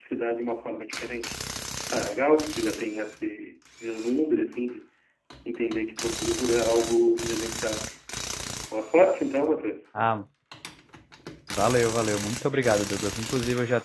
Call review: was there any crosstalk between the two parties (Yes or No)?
No